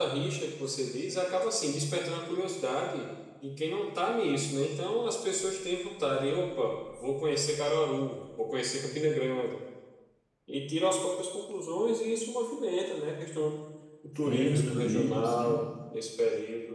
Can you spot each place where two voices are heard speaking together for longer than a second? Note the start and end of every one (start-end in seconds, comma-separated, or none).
14.3-15.6